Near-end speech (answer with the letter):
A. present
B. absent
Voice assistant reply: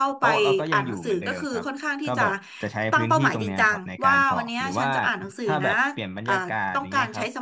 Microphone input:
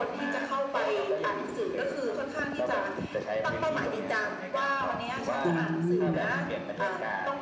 A